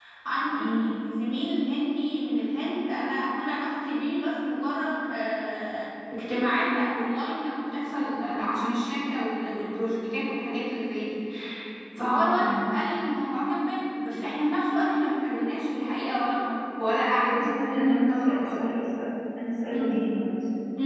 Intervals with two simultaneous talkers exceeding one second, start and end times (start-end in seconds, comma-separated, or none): 17.3-18.6